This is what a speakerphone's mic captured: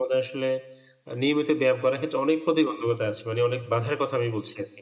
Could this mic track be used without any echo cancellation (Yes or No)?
Yes